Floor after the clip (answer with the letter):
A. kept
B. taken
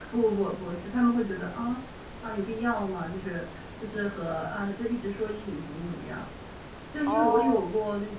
A